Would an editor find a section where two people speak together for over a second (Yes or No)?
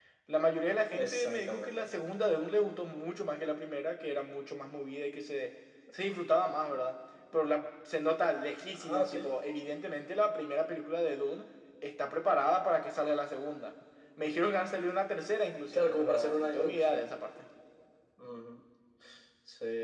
Yes